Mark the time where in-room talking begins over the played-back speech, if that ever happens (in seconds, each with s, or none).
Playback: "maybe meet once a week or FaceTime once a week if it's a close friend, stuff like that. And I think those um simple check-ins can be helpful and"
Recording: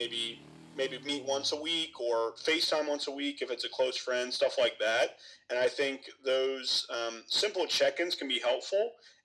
none